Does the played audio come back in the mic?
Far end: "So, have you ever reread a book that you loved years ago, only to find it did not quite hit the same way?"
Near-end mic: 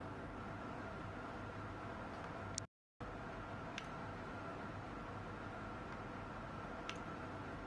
No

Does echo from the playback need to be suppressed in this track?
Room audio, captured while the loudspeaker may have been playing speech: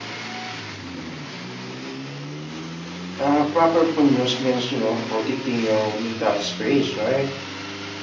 No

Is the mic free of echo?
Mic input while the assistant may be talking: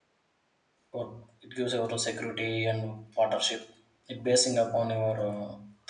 Yes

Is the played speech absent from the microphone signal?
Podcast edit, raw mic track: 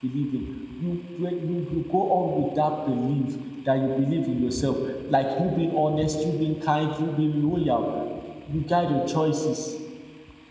Yes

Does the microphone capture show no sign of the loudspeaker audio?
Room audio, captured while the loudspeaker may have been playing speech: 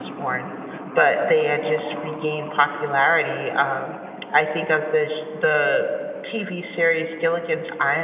Yes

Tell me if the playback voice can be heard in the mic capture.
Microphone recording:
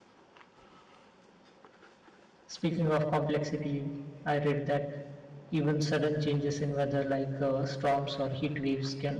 No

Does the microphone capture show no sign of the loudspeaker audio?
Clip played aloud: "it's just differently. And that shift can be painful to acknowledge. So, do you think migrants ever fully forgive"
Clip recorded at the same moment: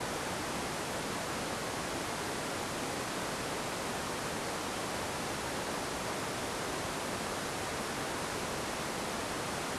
Yes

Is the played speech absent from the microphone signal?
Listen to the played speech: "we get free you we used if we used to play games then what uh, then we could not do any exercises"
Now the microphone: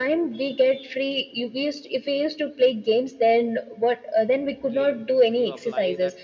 No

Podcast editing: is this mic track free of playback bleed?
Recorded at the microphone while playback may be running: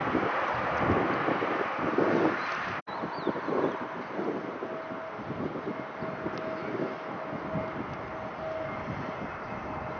Yes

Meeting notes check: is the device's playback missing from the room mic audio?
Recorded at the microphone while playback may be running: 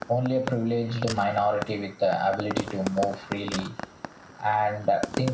No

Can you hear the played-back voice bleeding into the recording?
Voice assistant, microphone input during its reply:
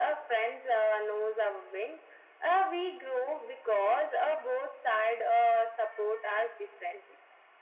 Yes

